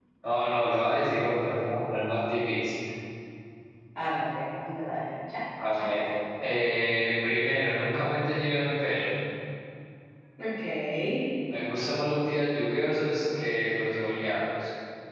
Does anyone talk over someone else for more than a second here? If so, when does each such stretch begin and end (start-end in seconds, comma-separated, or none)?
none